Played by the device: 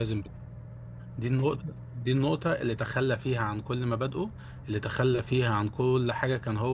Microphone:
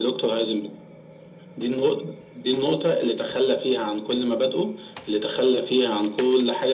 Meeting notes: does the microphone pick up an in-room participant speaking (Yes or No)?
No